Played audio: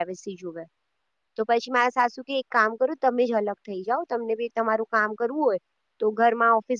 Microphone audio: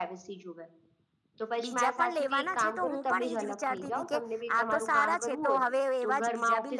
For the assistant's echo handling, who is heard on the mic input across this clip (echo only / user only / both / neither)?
both